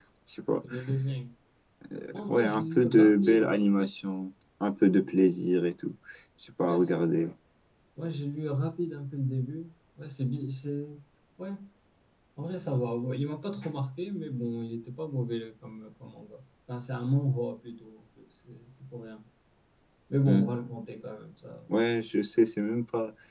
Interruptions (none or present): present